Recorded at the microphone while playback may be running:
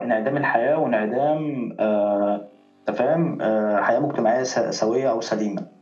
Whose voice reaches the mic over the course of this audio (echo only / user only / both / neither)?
echo only